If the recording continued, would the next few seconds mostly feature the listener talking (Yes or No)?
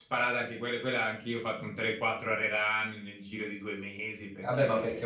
Yes